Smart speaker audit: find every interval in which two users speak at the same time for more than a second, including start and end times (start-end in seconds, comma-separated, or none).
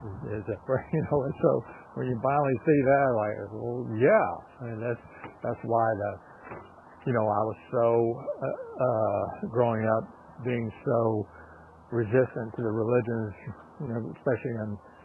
none